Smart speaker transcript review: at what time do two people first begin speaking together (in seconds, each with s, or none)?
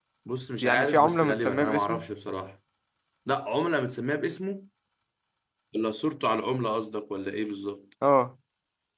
0.6 s